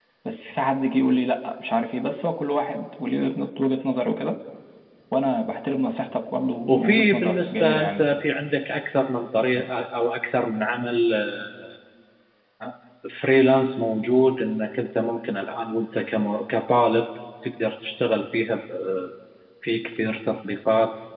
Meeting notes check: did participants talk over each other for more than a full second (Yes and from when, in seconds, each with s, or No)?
Yes, from 6.7 s